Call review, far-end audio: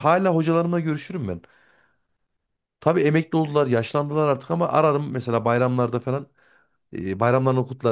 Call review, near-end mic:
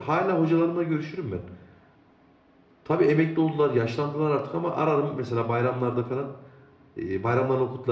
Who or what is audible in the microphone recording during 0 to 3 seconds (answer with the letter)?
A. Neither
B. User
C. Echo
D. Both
C